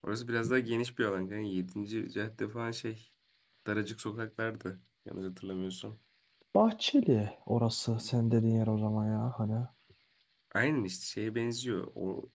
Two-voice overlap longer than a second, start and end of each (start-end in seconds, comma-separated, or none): none